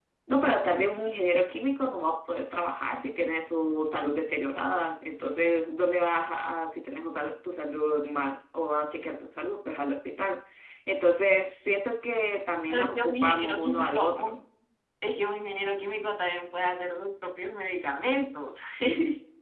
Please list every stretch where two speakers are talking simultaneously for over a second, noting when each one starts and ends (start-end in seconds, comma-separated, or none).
12.7-14.3